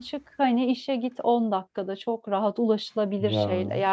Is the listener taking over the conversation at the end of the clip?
No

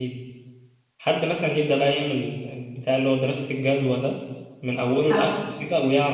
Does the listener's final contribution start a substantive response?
No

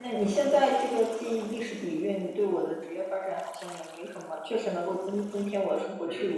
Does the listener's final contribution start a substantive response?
Yes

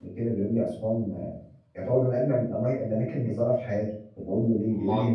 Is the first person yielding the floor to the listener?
No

